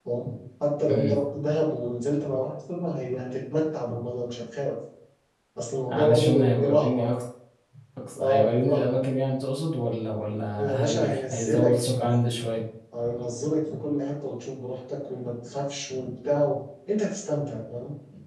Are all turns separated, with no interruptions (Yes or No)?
No